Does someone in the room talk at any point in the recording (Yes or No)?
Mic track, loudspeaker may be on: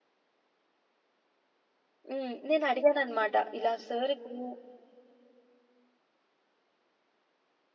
Yes